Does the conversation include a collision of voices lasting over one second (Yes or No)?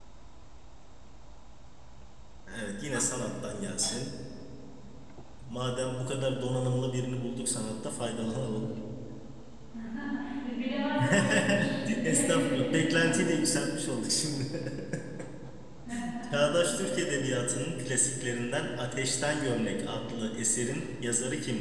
Yes